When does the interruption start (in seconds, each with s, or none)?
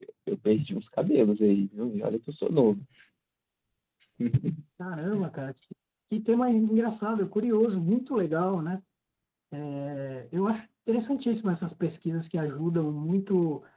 none